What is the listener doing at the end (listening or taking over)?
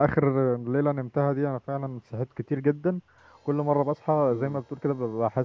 listening